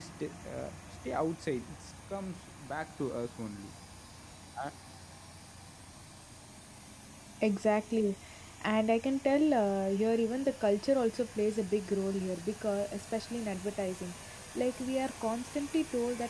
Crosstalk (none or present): none